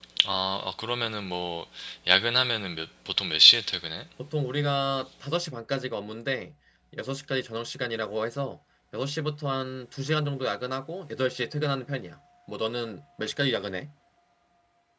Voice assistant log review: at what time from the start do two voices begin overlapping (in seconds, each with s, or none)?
none